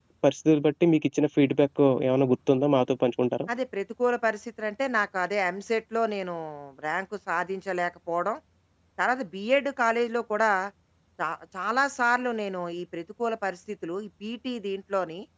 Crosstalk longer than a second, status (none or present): none